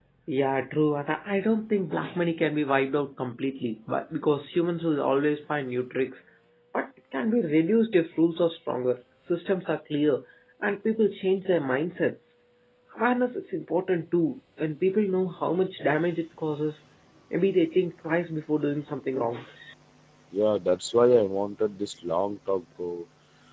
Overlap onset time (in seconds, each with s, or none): none